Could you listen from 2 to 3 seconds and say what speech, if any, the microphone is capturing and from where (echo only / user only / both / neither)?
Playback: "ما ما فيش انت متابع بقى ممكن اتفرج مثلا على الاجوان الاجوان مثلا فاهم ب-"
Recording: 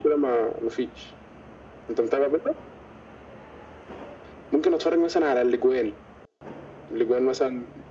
echo only